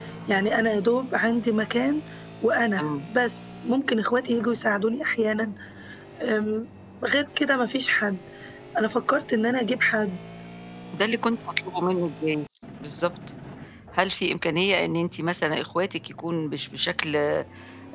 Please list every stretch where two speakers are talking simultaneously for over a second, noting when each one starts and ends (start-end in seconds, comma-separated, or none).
none